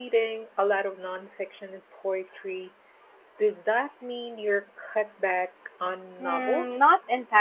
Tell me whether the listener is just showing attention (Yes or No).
No